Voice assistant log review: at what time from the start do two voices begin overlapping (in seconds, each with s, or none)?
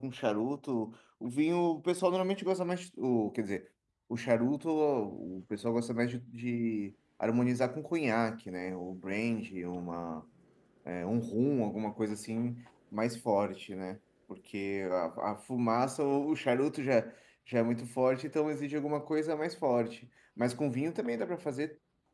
none